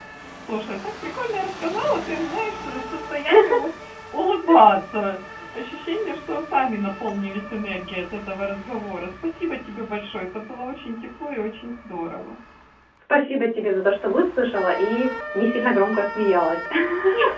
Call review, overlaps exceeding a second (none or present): none